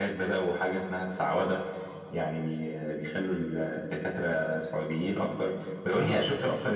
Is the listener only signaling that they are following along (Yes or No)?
Yes